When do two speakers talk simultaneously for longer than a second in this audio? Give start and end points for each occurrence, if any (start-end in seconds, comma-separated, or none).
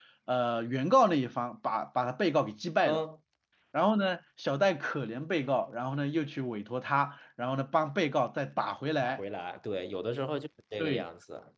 none